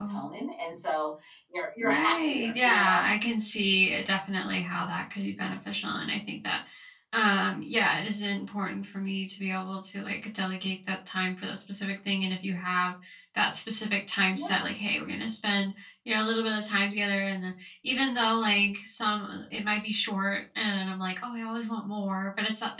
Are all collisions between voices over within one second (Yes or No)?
No